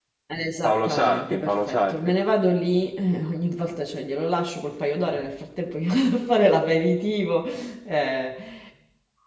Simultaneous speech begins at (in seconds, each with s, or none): 0.6 s